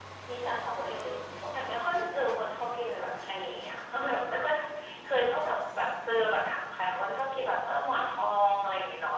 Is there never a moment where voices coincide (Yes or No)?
No